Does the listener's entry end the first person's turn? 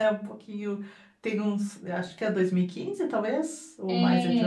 Yes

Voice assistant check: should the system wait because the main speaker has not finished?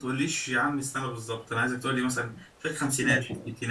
No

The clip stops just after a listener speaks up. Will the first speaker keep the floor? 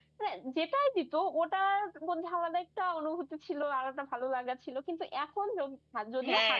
No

